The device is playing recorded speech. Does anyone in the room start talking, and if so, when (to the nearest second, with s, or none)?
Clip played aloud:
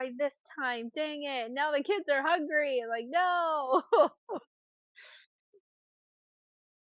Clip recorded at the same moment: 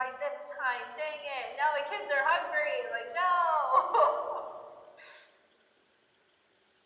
none